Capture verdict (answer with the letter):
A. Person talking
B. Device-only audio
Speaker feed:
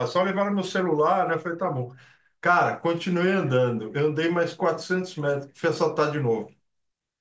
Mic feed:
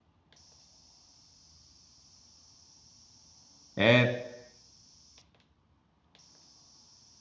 A